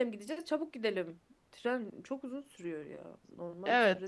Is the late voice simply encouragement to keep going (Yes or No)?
No